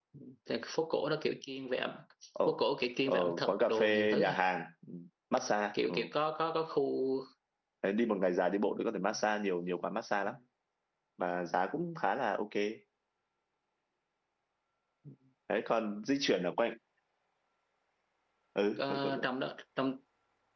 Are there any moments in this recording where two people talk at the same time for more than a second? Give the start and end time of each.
3.1-4.4

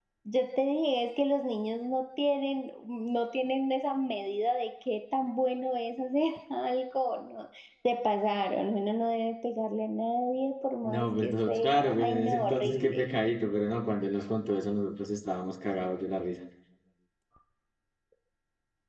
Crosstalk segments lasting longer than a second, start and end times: 10.8-13.1

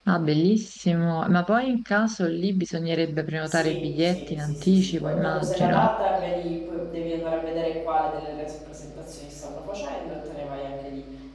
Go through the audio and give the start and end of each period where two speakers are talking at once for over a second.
3.5-5.9

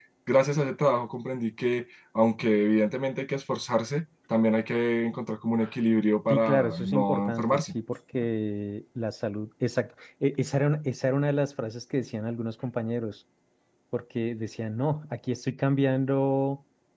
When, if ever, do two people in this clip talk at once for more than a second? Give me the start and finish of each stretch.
6.3-7.8

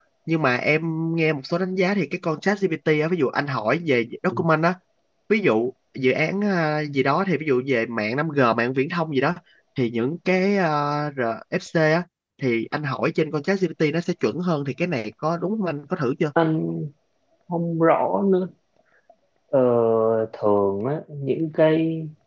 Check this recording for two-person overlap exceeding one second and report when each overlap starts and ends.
none

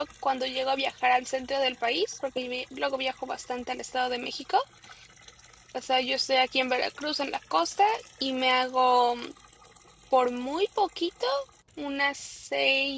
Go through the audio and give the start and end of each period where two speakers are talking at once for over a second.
none

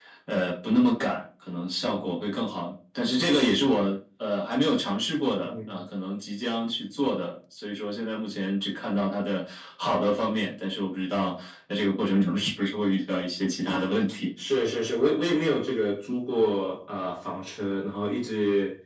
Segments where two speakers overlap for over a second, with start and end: none

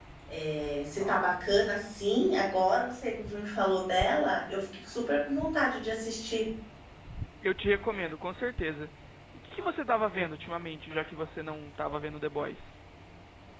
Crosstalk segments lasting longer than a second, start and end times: none

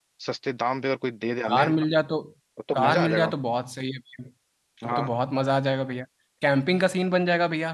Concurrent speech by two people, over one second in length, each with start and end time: none

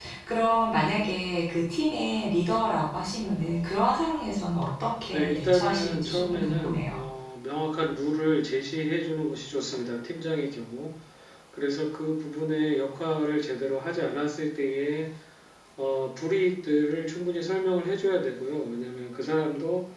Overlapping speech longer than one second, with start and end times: 5.1-7.0

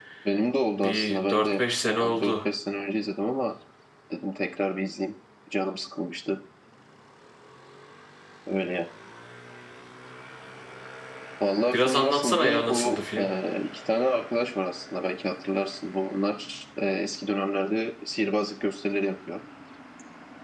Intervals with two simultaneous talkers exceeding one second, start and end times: 0.8-2.3, 11.7-13.3

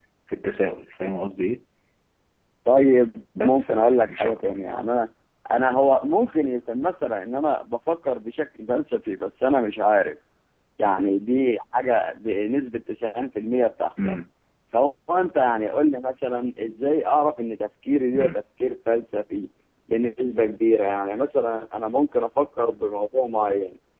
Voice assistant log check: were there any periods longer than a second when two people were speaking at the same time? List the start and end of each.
3.4-4.7

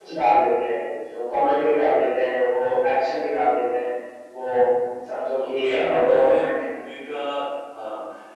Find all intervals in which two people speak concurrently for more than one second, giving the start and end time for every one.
5.4-6.6

